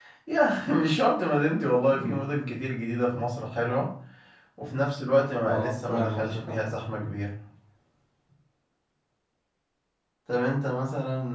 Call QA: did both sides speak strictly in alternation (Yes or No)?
No